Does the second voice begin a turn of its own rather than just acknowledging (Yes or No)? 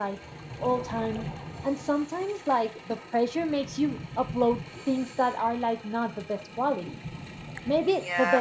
No